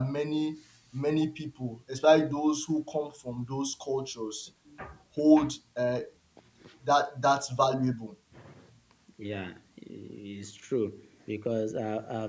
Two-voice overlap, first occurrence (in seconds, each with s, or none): none